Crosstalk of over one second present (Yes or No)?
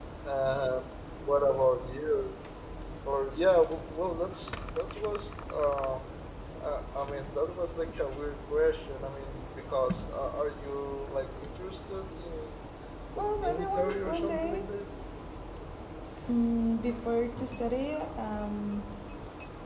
Yes